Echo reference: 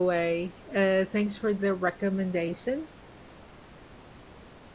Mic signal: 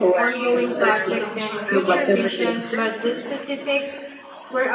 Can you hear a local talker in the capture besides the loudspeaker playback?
Yes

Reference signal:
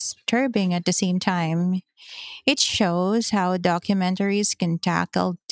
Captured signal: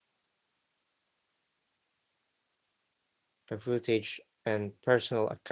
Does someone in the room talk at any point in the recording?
Yes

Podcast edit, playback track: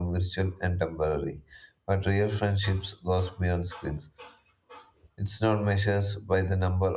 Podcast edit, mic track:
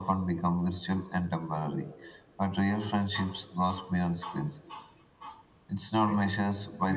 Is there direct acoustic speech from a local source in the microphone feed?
Yes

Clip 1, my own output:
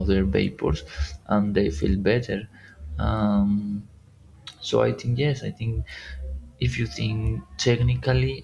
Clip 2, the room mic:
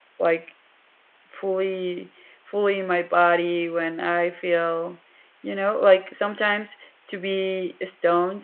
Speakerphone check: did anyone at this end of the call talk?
Yes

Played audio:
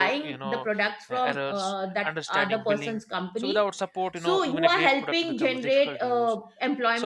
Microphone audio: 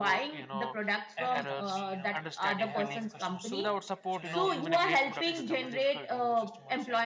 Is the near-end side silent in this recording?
No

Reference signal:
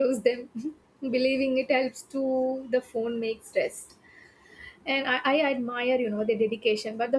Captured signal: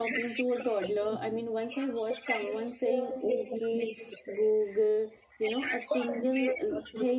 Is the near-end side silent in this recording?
No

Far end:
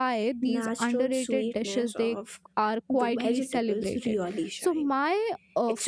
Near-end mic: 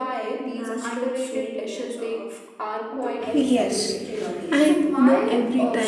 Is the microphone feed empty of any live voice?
No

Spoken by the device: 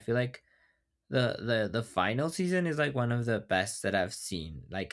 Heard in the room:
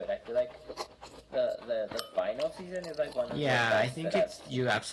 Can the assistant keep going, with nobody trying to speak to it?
No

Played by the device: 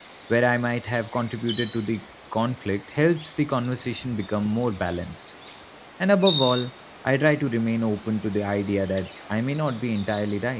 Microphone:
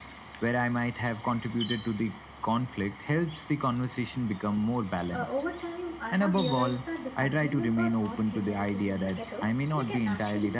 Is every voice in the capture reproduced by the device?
No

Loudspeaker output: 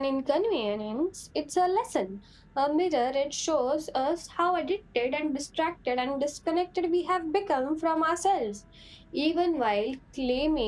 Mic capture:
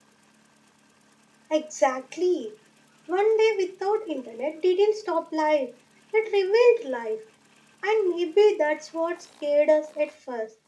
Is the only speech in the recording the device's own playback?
No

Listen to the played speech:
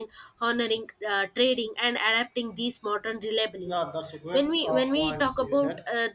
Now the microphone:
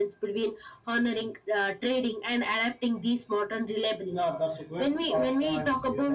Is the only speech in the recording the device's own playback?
Yes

